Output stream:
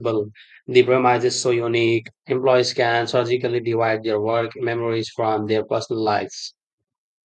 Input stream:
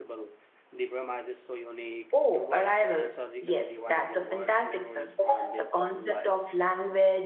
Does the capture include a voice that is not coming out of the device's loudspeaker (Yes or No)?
Yes